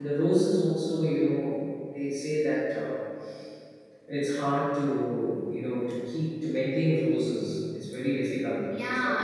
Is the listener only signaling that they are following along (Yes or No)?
No